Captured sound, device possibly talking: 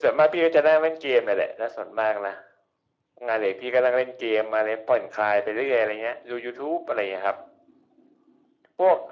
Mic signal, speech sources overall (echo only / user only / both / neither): echo only